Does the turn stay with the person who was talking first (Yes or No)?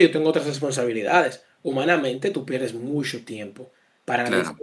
Yes